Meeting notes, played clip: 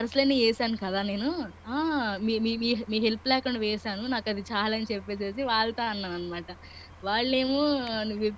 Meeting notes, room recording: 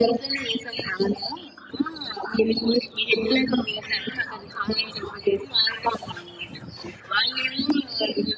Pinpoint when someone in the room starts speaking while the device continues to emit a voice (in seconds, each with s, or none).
none